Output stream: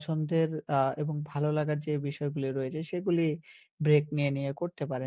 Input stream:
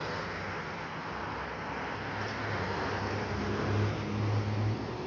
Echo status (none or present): none